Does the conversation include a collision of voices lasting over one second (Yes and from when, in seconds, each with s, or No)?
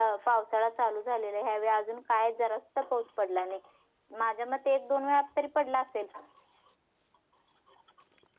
No